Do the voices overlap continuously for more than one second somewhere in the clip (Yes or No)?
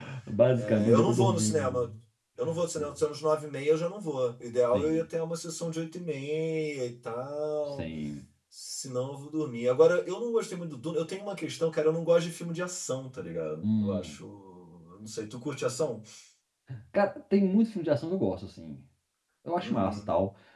Yes